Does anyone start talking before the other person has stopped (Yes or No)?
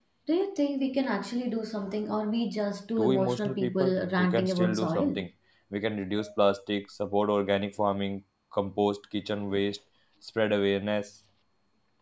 Yes